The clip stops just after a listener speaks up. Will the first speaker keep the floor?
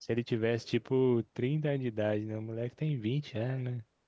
No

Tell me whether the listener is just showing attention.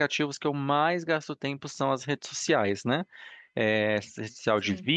Yes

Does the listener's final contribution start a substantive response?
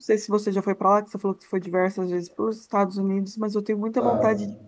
No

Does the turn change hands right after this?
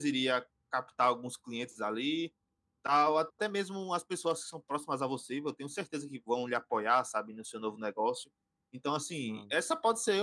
No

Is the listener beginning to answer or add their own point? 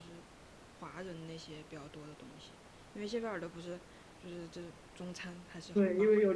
Yes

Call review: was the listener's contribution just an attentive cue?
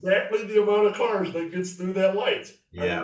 No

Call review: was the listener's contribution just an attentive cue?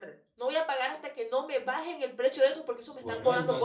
No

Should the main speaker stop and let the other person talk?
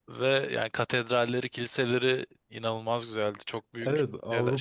Yes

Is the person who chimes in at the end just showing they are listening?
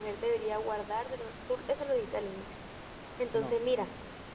Yes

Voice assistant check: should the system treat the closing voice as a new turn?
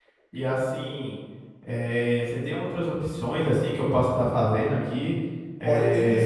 Yes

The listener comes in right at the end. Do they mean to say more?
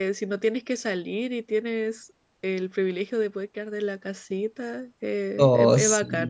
Yes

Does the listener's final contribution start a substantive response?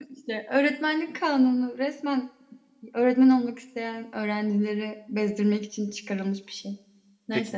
Yes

